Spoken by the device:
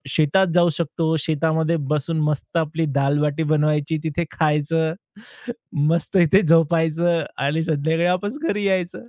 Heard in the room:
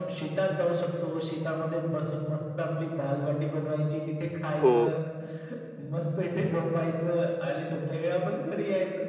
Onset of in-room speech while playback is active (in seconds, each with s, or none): 4.6 s